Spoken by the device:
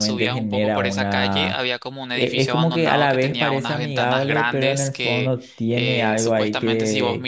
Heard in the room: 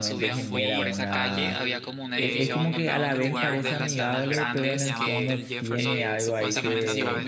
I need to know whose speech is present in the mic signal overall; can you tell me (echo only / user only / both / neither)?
both